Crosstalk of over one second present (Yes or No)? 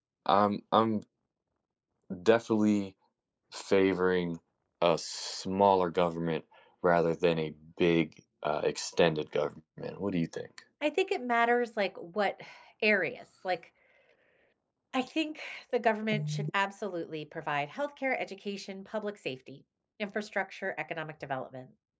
No